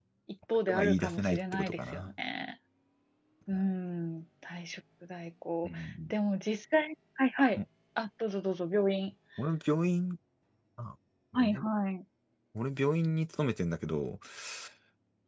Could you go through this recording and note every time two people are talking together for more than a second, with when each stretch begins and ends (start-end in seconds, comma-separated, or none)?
0.7-2.1